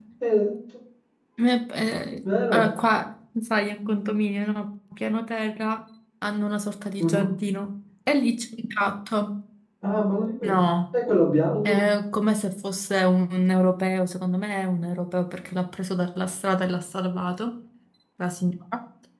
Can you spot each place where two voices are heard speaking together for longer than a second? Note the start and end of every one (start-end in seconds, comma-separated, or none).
none